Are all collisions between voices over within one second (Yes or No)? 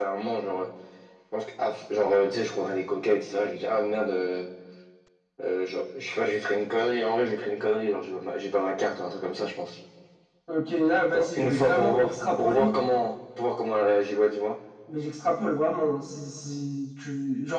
No